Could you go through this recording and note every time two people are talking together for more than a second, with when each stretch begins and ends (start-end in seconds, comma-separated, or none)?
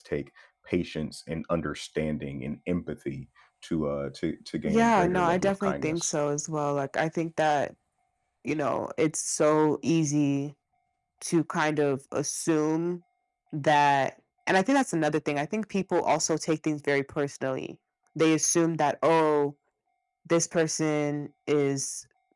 4.7-6.1